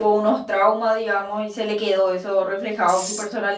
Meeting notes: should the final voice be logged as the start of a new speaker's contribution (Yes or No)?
No